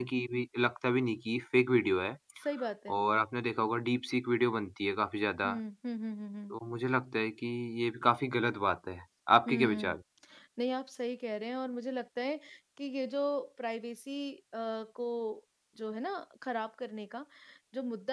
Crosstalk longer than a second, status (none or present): none